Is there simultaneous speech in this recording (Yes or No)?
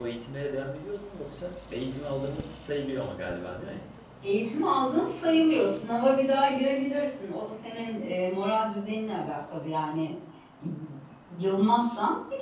No